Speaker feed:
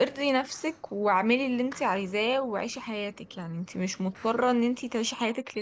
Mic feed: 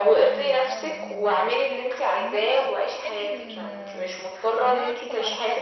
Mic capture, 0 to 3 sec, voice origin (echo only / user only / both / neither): both